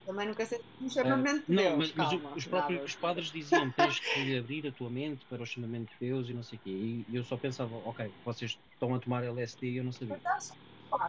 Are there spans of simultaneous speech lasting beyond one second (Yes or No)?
Yes